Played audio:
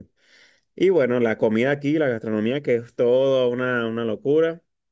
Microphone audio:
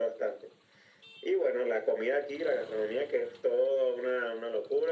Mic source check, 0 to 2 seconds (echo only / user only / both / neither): echo only